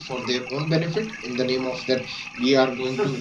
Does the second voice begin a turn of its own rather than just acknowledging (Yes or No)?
No